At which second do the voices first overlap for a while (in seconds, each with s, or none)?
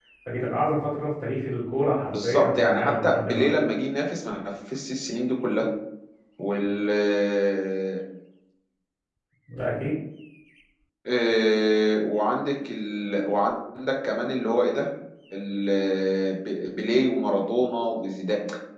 2.1 s